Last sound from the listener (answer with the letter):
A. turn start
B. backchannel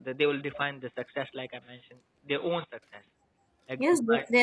A